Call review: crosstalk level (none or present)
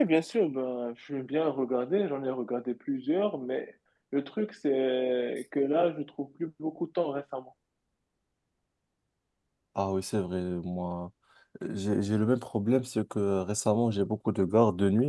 none